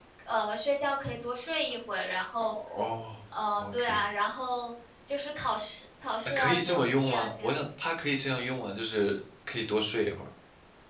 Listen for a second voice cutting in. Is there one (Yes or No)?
Yes